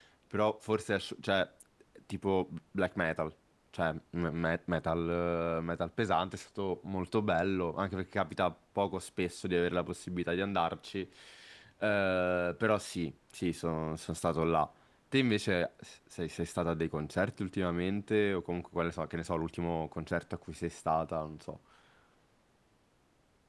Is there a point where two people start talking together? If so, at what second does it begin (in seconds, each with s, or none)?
none